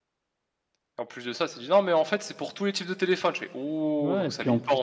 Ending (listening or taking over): taking over